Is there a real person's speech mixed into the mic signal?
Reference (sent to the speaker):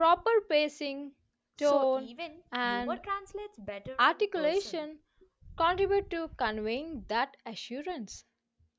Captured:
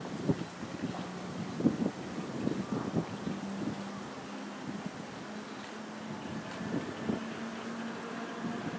No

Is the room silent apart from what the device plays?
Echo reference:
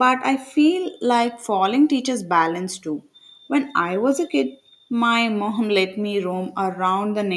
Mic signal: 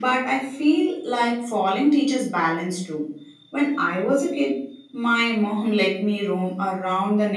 Yes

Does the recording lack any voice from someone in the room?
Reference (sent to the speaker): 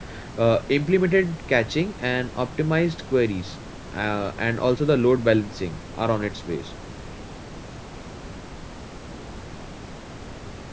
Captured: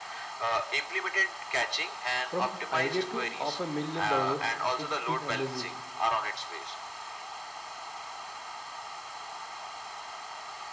No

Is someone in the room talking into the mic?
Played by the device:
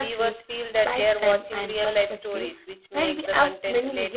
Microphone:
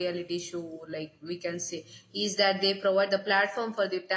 Yes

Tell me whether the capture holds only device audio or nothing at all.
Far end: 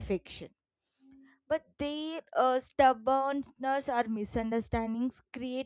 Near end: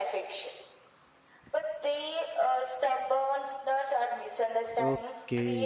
No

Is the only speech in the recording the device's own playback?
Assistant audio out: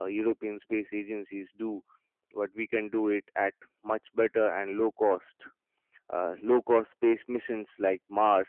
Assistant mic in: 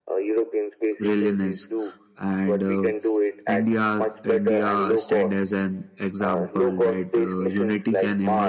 No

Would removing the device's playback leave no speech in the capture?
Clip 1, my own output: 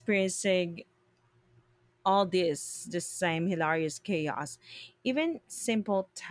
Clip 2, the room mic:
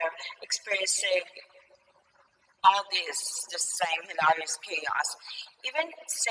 Yes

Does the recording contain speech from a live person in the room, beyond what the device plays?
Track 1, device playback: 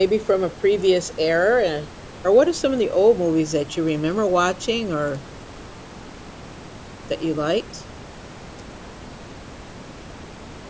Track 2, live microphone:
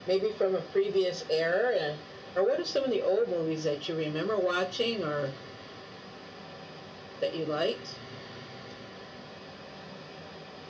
No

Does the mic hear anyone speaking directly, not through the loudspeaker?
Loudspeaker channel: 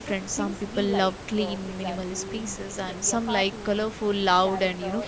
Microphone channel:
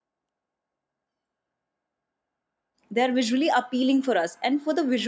Yes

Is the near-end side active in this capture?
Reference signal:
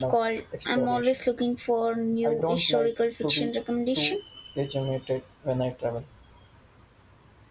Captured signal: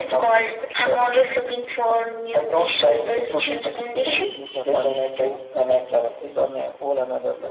Yes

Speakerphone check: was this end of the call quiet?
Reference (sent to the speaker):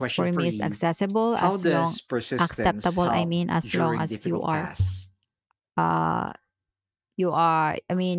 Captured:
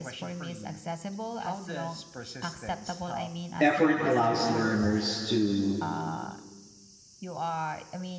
No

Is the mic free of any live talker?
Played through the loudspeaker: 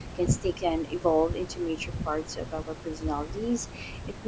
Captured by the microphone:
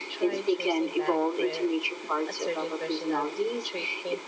No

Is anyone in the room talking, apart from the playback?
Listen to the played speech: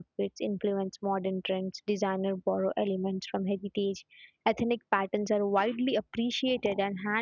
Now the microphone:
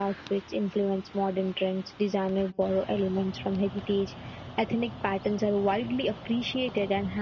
No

